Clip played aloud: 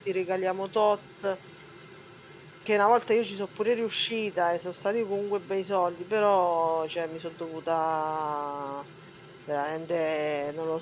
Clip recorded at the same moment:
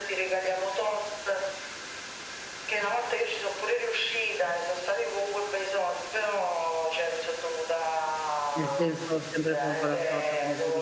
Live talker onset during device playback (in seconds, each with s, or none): 8.5 s